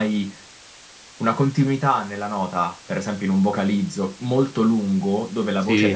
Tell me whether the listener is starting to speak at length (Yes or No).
No